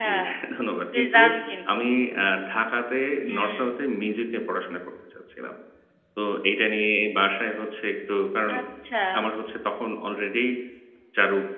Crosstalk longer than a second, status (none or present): none